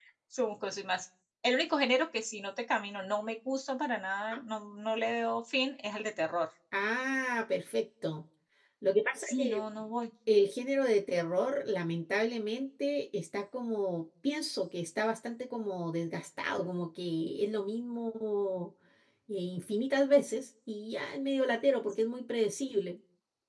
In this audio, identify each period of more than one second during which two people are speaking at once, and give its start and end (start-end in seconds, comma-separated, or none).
none